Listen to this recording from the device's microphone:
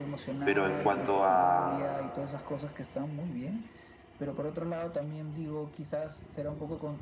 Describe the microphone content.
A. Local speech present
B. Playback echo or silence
A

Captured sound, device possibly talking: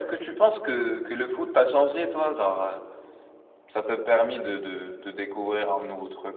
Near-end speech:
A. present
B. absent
B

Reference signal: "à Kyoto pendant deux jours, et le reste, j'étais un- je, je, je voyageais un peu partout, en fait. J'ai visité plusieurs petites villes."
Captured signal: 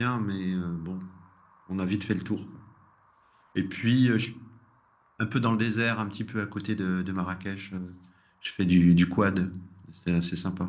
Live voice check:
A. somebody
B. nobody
A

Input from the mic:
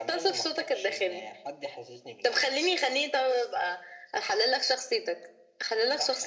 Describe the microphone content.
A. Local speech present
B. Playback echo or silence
B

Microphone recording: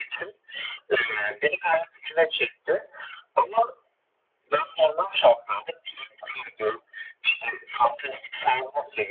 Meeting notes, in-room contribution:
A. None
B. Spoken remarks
A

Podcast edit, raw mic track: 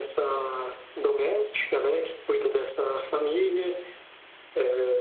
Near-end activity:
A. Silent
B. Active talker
A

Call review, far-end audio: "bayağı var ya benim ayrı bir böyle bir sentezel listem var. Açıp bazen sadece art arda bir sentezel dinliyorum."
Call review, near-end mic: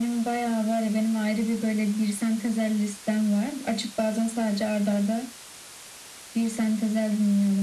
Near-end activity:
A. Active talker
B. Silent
B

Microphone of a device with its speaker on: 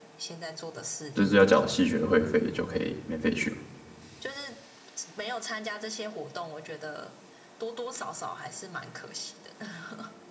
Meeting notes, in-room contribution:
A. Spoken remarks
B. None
A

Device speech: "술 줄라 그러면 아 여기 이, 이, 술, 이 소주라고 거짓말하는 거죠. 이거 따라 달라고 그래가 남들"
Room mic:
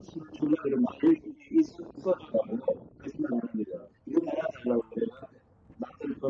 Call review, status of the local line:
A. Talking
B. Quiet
B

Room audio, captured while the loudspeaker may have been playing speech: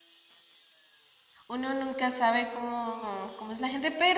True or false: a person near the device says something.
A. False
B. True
B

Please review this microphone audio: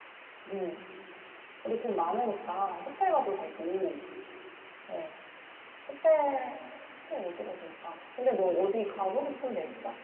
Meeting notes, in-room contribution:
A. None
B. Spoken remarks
A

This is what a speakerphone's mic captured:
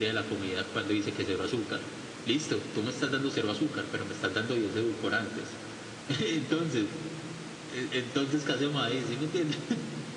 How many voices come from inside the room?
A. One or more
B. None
B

